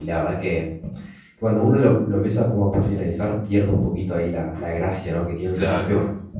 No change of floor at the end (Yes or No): Yes